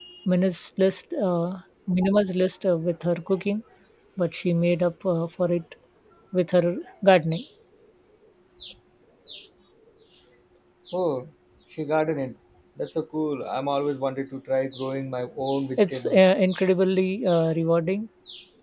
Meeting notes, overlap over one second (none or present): none